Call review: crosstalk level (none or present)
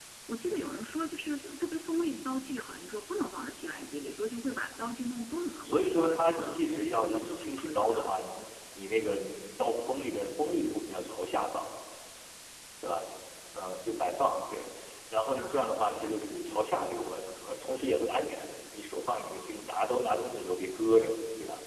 present